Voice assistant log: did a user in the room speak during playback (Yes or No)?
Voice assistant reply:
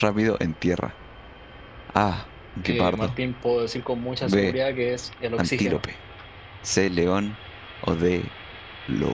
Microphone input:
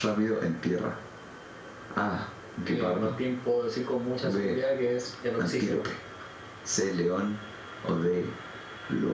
No